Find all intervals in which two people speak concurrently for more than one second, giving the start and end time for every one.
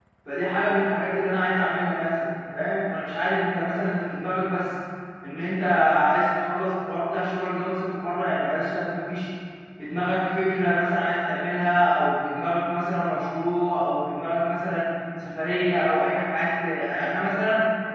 none

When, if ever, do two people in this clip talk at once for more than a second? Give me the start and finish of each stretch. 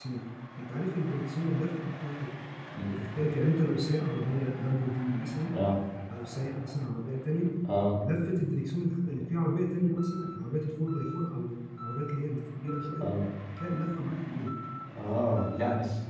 none

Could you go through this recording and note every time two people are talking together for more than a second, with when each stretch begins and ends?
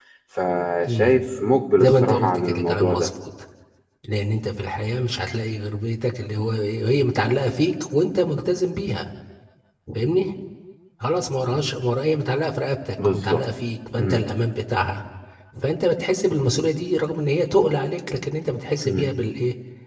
1.8-3.1

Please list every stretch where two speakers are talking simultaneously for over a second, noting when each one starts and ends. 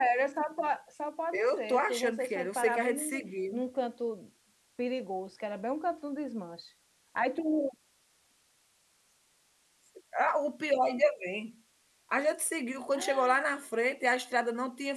1.3-3.6

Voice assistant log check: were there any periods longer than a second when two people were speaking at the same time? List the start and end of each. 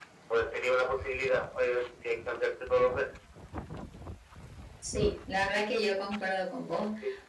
none

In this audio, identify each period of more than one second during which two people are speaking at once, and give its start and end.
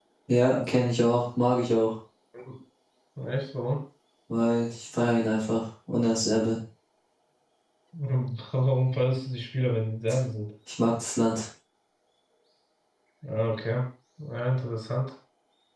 none

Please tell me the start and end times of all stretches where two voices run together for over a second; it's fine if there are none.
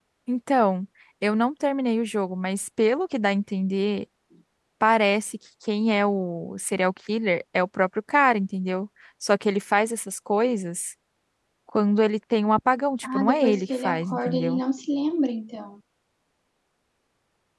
13.0-14.6

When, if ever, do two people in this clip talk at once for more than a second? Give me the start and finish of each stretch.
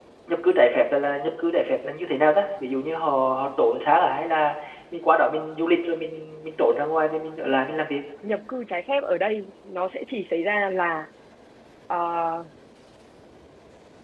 none

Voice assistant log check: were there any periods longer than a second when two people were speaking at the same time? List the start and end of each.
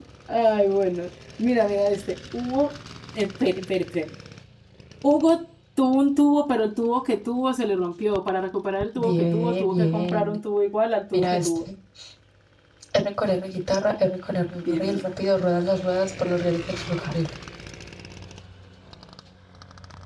9.0-10.4

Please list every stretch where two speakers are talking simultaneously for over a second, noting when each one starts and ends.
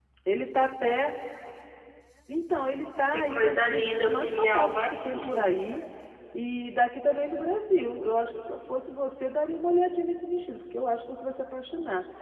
3.1-5.5

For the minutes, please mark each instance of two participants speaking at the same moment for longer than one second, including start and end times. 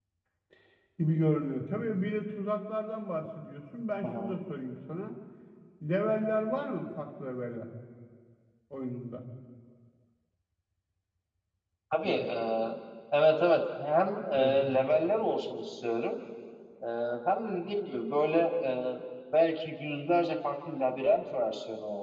none

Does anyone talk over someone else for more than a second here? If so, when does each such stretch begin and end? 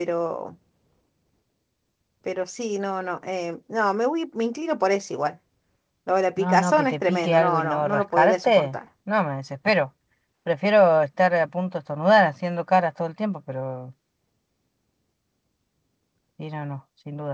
6.4-8.8

